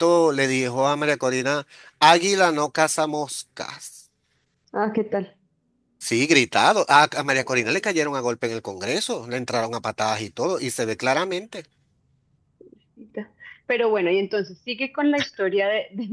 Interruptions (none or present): none